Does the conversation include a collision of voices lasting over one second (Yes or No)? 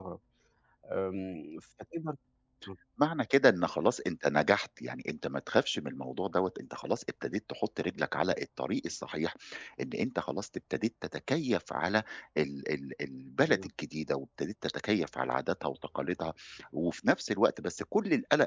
No